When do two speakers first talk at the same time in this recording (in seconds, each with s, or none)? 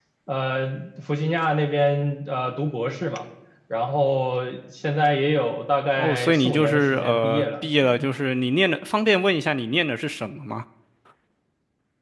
6.0 s